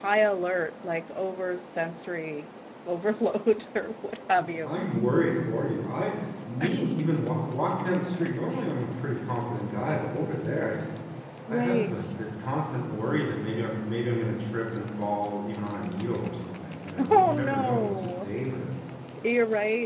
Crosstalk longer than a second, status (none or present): present